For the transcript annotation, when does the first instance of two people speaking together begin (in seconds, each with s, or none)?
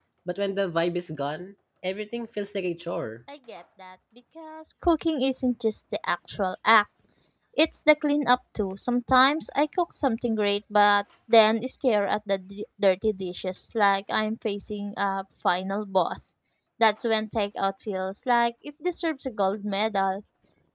none